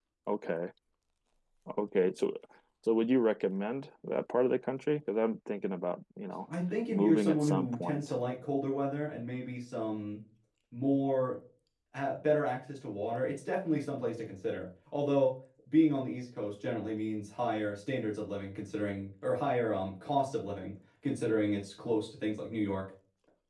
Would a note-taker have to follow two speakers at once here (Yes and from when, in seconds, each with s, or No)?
Yes, from 6.9 s